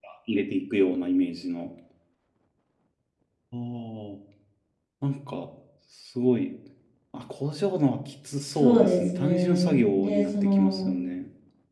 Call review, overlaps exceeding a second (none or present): present